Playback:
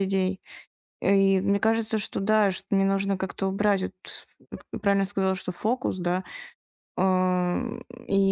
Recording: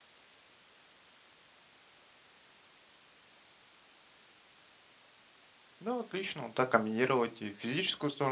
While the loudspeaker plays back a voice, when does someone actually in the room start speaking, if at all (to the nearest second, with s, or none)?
6 s